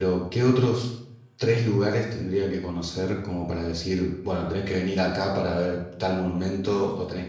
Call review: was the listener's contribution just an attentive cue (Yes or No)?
Yes